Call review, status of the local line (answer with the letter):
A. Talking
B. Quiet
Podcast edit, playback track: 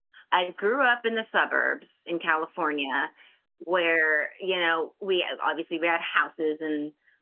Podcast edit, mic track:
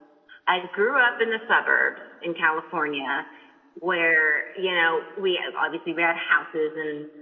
B